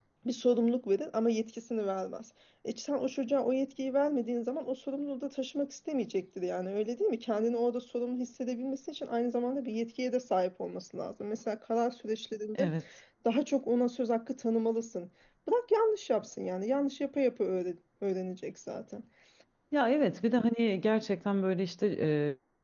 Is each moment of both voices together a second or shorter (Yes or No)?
Yes